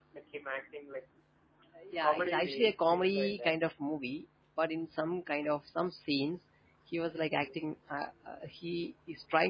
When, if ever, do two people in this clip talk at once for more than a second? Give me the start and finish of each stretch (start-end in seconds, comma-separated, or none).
2.0-3.5